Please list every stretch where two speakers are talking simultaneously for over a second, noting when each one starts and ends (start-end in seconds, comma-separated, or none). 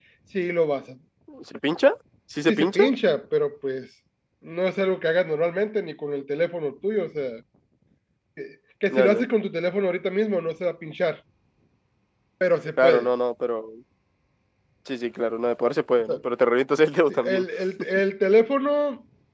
none